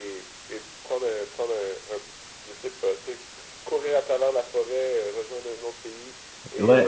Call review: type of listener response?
taking over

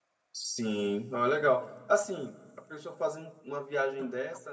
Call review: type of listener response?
listening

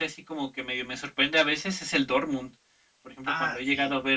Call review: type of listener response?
listening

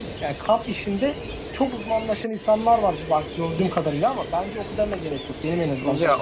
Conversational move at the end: taking over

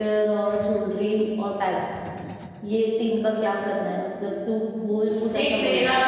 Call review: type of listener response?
taking over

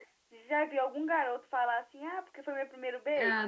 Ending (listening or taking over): taking over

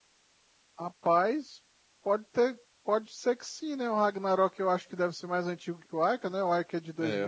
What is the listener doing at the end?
taking over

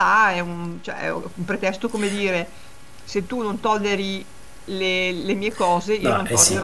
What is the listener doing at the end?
taking over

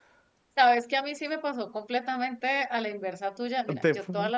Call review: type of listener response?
listening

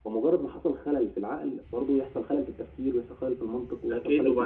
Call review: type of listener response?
taking over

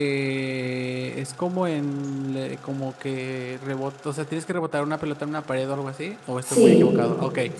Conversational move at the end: taking over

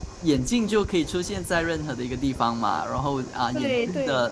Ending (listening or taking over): listening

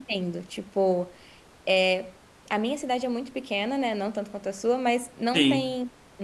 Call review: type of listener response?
listening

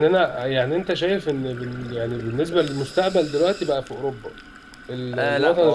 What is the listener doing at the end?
taking over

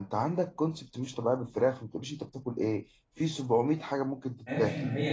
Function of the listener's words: taking over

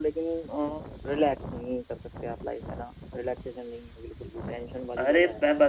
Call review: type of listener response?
taking over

